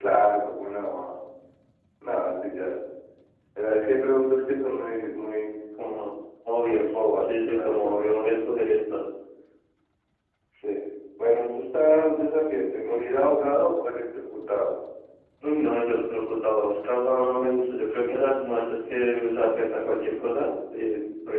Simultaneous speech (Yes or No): Yes